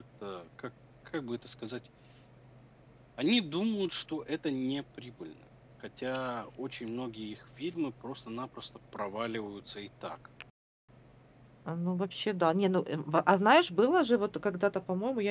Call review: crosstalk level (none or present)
none